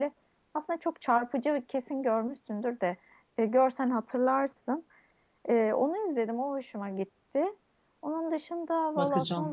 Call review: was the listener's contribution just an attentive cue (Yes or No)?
Yes